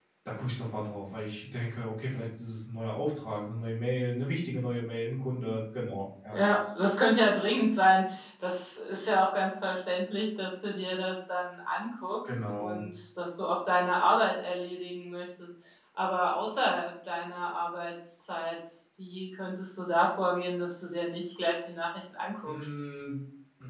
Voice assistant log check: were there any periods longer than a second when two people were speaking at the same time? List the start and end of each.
none

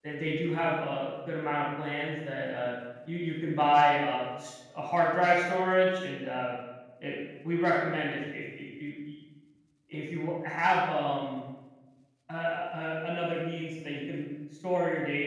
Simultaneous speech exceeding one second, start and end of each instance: none

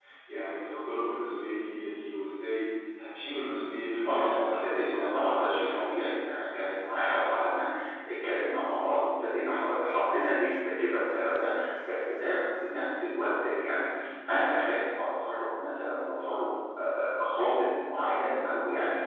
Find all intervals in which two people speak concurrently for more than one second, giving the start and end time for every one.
4.1-5.8

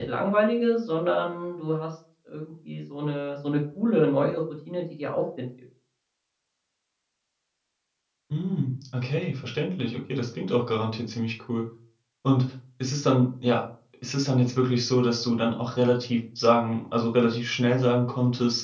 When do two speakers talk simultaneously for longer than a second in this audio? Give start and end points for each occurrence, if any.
none

